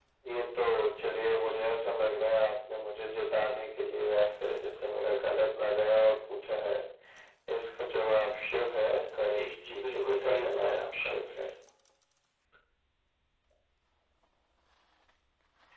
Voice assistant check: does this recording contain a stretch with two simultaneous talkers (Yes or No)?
Yes